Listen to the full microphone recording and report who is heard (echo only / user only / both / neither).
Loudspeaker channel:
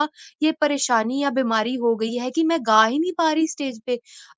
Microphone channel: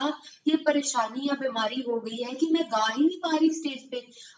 echo only